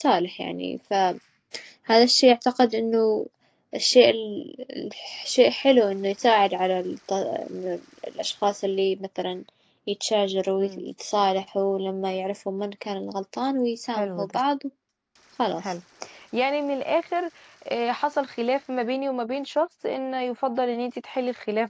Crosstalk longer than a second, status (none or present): none